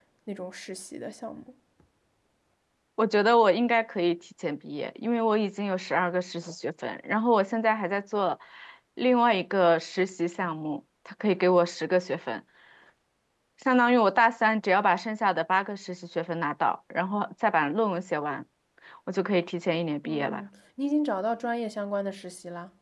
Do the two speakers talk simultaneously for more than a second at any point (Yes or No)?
No